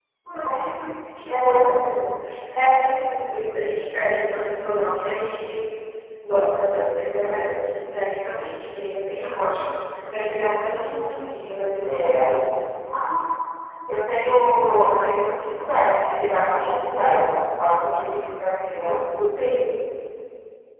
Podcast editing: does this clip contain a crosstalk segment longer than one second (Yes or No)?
No